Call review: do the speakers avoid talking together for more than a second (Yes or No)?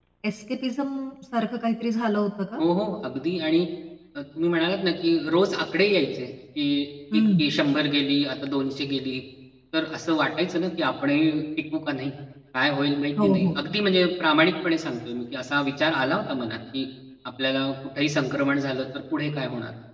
Yes